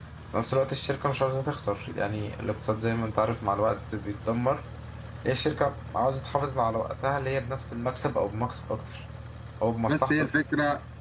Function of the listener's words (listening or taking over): taking over